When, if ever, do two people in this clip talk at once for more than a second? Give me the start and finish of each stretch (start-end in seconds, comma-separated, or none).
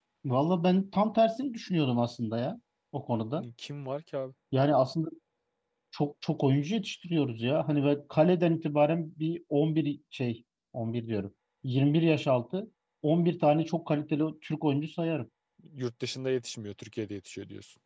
none